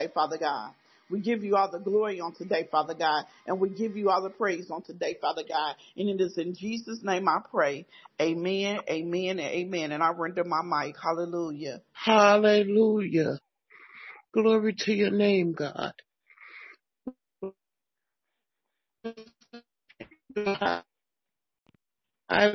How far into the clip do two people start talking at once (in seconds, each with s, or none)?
none